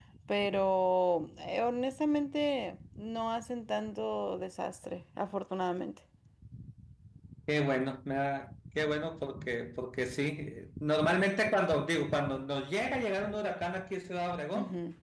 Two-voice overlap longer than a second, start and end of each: none

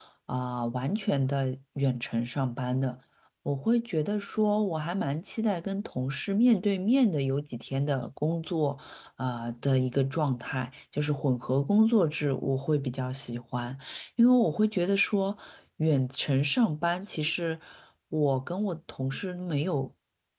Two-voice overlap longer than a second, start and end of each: none

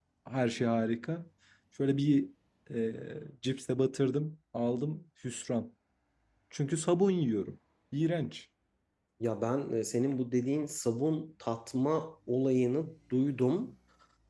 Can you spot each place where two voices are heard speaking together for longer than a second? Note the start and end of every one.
none

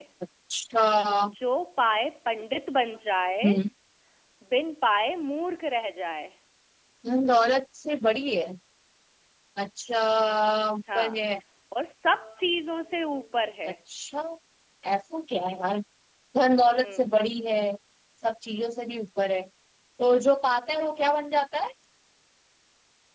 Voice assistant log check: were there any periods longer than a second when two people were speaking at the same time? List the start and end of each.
none

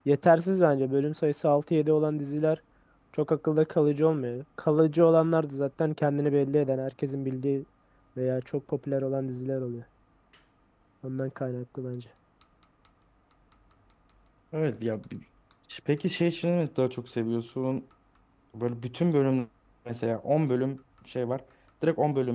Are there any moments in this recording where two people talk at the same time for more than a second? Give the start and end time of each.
none

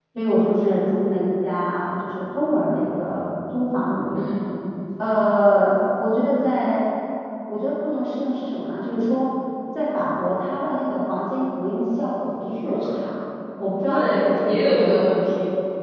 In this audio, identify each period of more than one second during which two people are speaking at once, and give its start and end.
13.9-15.1

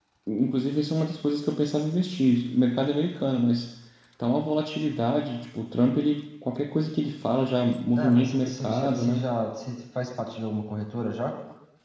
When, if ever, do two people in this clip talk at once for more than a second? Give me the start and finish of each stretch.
8.0-9.2

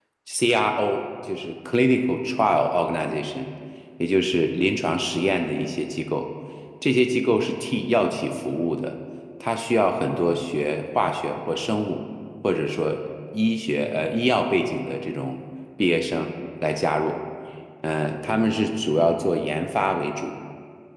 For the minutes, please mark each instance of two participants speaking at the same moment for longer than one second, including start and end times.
none

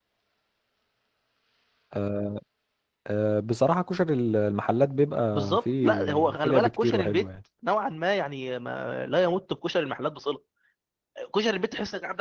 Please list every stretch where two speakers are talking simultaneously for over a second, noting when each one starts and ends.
5.3-7.3

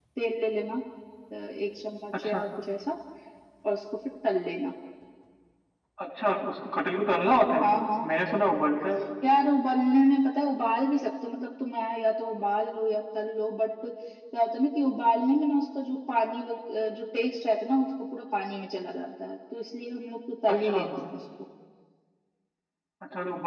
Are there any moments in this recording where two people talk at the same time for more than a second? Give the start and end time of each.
none

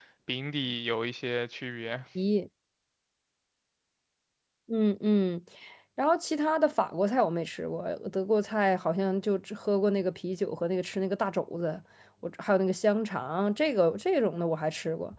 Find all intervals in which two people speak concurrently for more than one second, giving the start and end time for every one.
none

